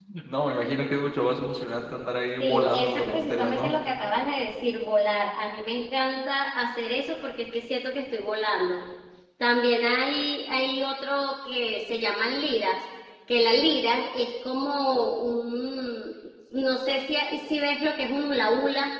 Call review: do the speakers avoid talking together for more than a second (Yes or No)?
No